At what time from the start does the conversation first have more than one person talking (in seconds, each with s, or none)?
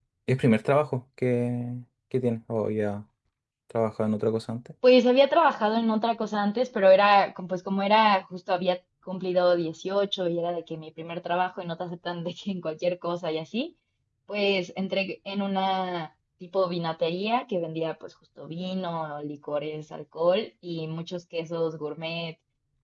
none